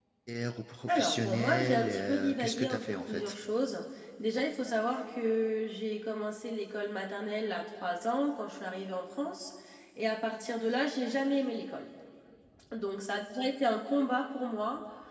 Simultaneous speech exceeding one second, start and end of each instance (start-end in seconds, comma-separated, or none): 0.9-3.4